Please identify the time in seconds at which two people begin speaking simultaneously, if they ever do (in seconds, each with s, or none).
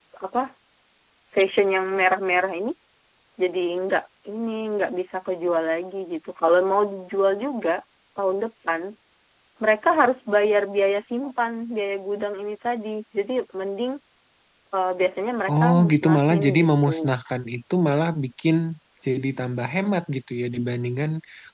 15.5 s